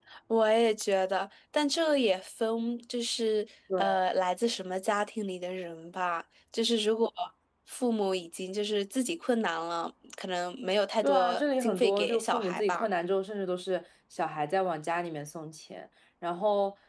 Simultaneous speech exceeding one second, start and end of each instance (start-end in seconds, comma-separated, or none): 11.0-12.8